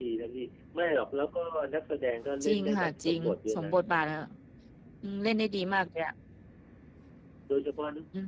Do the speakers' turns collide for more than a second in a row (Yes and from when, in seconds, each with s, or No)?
Yes, from 2.4 s